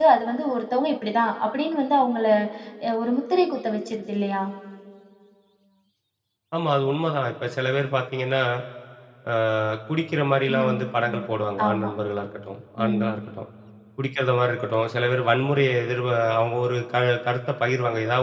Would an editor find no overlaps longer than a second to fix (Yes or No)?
Yes